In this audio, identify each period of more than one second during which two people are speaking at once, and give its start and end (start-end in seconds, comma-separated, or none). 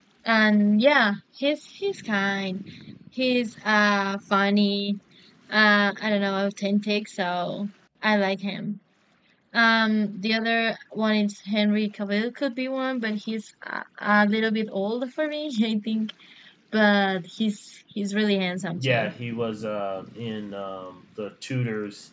none